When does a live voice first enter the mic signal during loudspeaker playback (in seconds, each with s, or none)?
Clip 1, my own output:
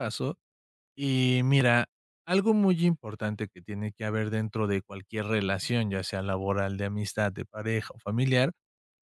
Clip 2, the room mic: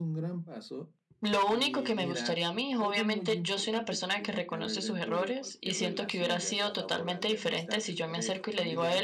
1.2 s